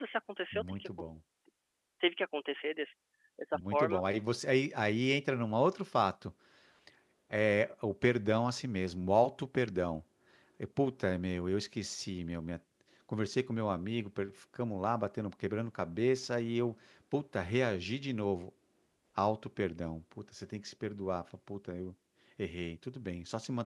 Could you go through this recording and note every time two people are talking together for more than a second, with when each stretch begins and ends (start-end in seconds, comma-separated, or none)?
none